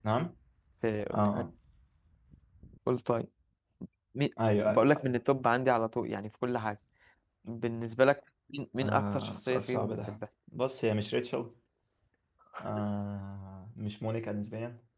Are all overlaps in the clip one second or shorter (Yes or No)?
No